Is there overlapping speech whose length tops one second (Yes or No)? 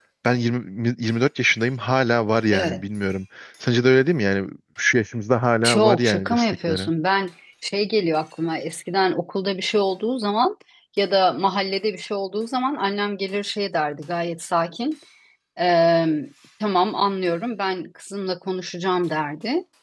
Yes